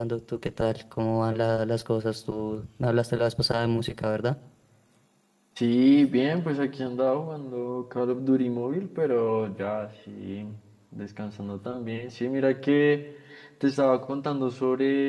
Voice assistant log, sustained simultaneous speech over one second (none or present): none